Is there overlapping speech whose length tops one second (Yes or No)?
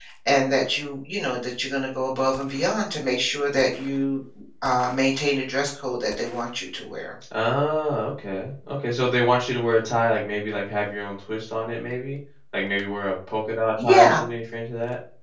No